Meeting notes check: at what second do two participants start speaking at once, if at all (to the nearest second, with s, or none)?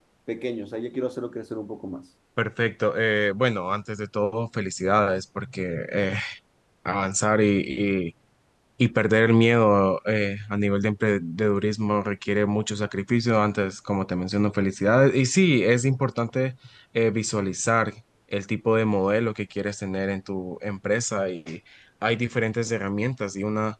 none